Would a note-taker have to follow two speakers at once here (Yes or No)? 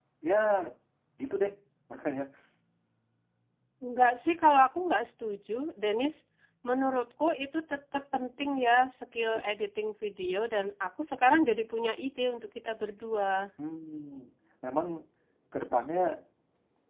No